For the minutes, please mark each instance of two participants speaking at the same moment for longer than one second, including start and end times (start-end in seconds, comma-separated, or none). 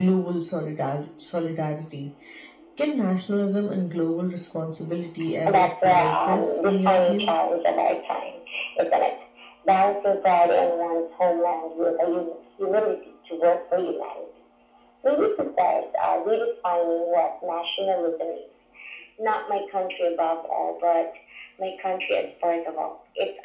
5.5-7.3